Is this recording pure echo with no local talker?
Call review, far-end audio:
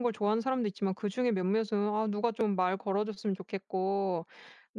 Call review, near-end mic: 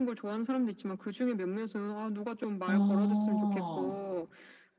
No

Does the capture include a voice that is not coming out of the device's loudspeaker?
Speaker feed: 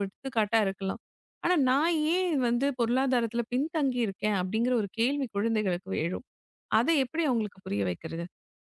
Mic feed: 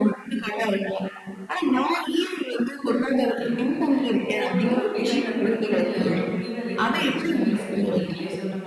Yes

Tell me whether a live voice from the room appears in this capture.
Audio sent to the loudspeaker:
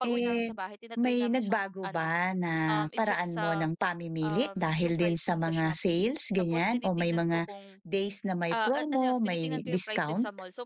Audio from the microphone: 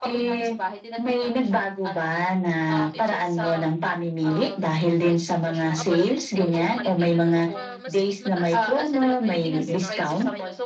Yes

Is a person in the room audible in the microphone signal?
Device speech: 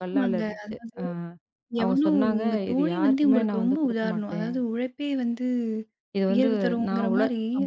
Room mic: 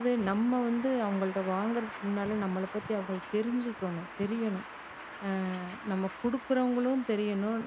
Yes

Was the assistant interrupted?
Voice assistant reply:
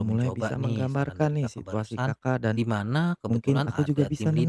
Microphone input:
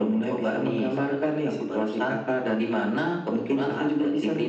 No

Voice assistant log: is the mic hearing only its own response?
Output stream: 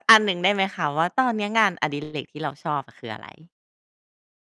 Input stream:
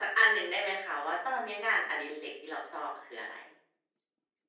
Yes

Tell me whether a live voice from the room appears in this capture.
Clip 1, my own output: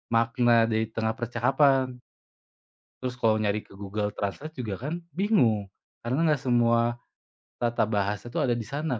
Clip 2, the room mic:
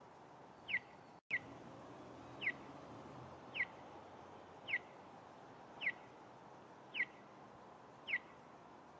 No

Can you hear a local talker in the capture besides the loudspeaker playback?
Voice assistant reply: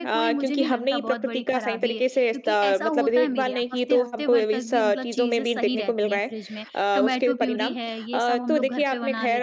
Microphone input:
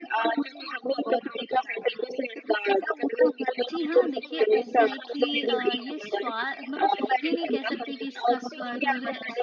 Yes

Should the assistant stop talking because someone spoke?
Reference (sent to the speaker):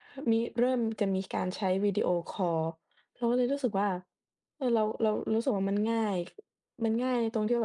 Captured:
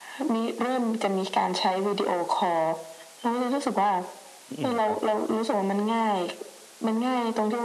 Yes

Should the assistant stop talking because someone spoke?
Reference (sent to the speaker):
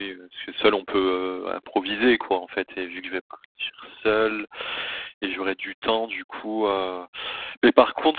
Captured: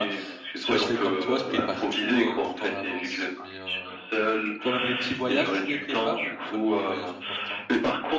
Yes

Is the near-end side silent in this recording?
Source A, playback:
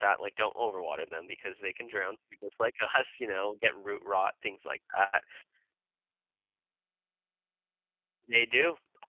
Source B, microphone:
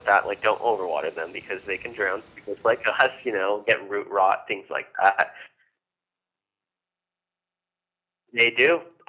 Yes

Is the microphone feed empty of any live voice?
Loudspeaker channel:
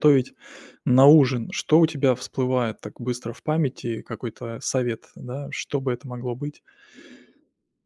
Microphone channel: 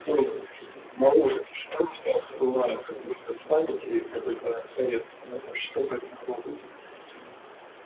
Yes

